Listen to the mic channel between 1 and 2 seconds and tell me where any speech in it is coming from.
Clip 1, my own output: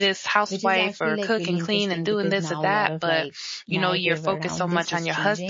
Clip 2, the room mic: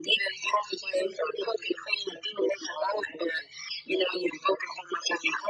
echo only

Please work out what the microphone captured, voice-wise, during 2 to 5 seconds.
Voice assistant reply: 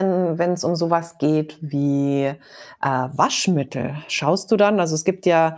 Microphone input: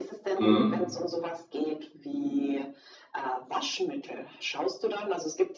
echo only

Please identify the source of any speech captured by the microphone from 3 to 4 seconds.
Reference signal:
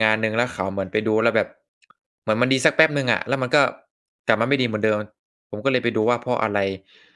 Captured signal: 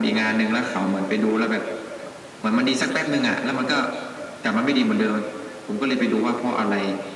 echo only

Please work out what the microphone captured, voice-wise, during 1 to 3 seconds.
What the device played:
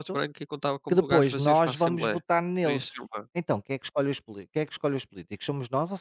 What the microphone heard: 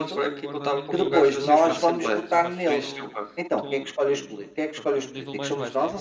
both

